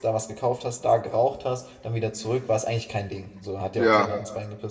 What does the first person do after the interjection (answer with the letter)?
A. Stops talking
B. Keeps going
B